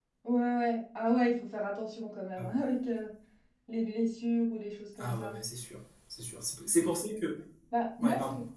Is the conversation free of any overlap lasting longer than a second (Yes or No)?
Yes